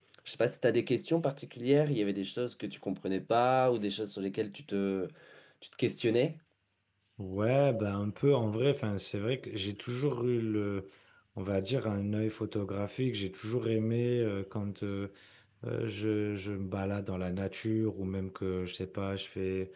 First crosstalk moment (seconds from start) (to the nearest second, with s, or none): none